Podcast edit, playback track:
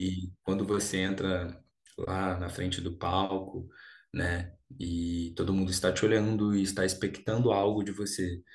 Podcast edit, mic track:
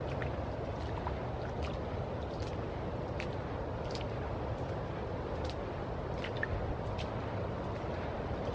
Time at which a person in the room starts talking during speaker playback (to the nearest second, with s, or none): none